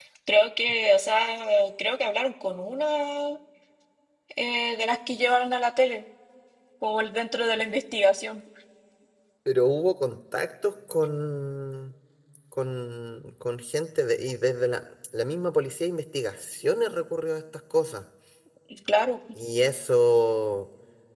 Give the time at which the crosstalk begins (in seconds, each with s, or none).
none